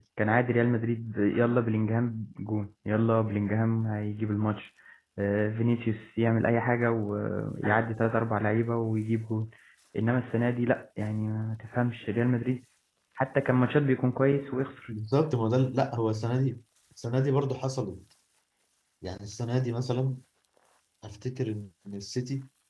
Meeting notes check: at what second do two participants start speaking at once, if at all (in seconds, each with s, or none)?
none